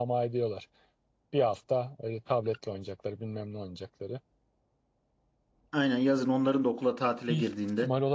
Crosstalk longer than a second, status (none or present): none